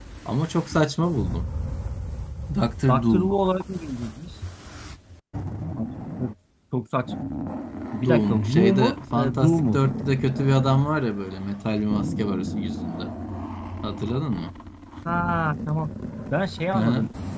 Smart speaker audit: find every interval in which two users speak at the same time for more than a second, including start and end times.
8.0-9.8

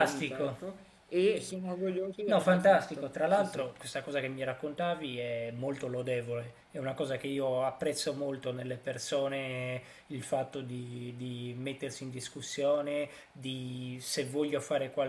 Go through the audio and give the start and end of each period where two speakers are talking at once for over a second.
2.3-3.6

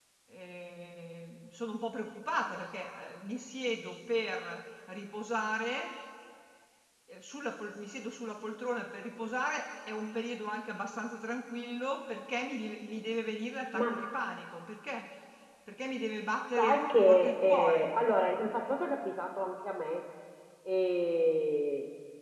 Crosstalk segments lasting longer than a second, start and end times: 16.6-17.9

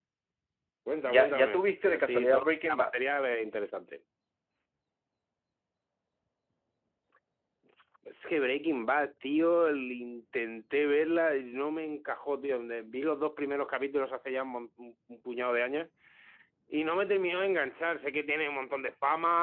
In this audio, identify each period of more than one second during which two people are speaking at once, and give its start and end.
1.1-2.9

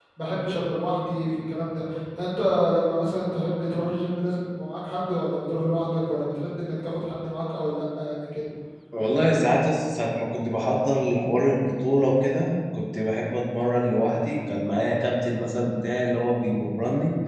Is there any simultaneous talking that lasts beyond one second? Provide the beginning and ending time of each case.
none

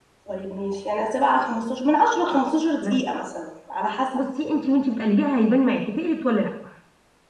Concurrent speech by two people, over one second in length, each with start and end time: none

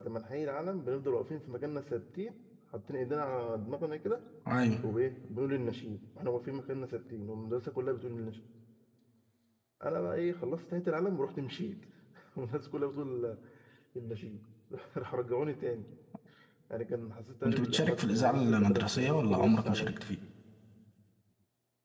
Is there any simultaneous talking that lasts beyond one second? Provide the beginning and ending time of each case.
17.4-19.9

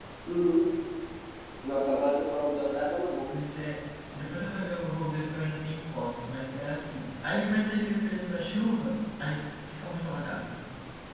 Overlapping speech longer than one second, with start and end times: none

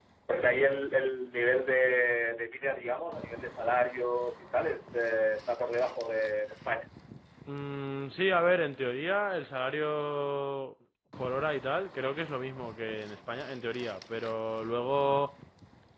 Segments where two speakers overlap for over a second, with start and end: none

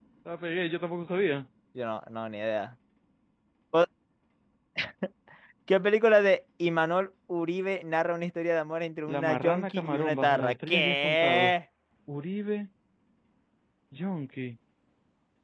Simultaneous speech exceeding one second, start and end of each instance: 9.1-11.5

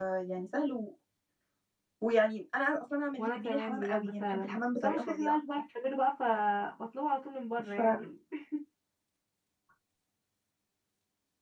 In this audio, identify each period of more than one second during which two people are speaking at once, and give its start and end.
3.2-5.4

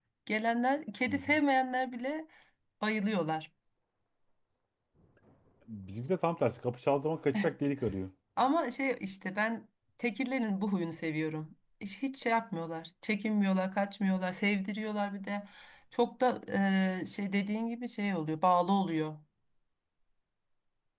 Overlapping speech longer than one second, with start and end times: none

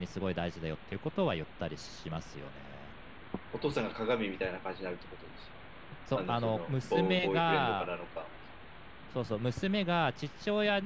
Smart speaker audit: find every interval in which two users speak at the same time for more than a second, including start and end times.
6.2-7.9

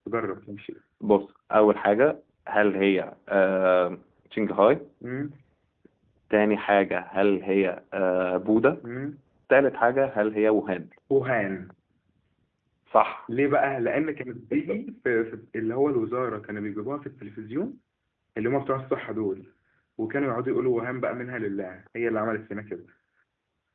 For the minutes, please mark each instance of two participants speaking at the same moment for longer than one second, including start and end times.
none

